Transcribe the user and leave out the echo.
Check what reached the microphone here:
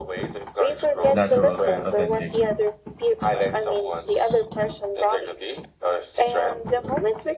natural and authentic.

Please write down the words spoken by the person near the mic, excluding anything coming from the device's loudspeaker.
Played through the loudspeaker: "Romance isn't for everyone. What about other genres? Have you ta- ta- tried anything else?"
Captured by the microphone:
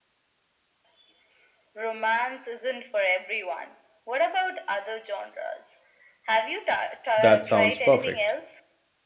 That sounds perfect.

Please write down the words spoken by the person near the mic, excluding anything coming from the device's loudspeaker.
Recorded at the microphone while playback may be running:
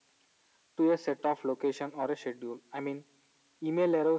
none

